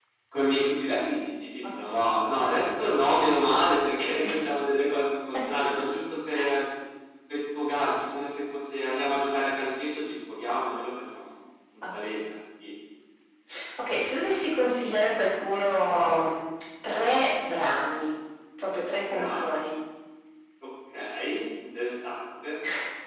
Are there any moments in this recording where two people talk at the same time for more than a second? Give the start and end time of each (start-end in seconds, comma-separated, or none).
none